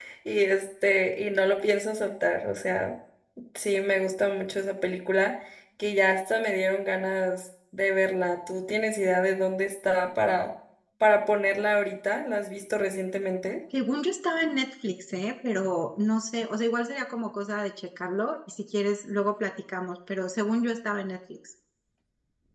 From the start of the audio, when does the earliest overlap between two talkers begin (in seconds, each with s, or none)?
none